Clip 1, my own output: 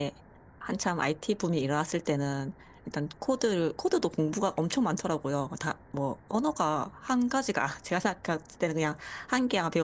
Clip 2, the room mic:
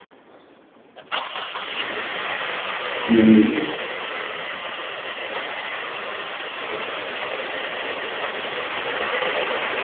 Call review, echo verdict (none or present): none